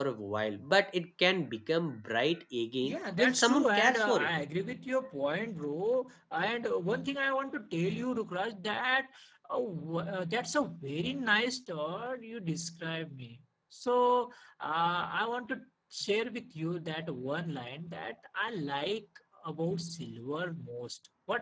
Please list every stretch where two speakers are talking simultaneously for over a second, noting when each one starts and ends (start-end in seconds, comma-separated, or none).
2.8-4.3